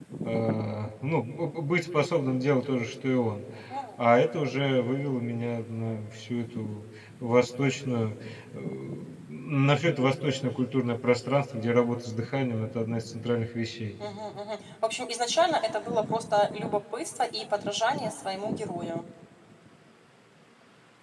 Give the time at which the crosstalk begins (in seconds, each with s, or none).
none